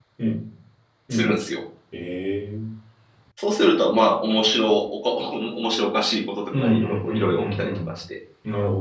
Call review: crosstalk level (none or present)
present